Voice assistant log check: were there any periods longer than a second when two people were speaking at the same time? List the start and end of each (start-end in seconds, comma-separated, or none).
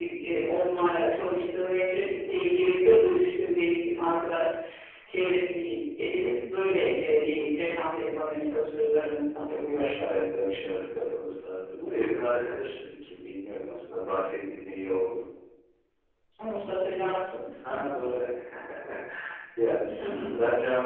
none